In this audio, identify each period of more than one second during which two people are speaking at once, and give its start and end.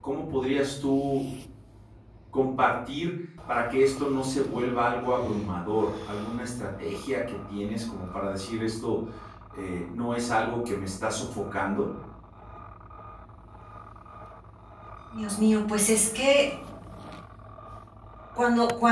none

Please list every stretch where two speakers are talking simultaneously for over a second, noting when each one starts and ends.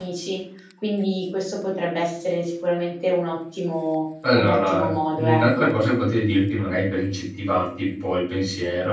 4.3-5.7

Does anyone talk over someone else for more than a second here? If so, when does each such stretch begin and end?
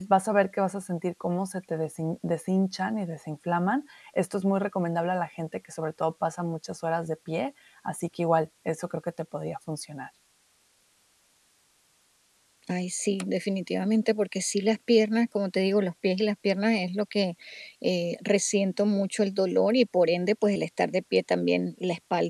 none

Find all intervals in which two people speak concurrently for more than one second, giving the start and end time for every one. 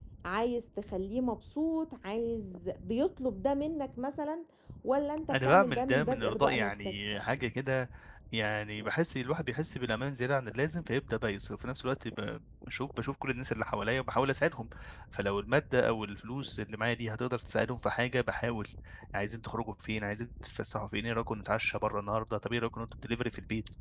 5.3-7.0

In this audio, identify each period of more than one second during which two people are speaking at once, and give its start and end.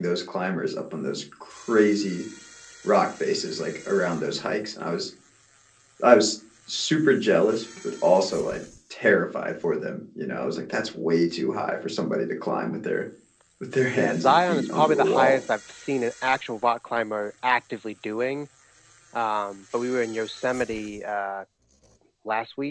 13.9-15.4

